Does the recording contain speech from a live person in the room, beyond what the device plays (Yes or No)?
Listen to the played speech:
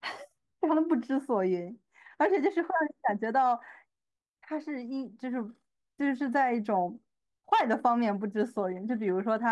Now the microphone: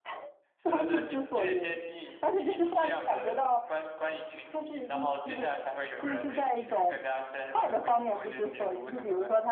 Yes